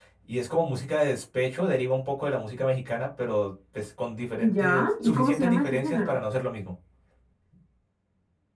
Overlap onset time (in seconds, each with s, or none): 4.4 s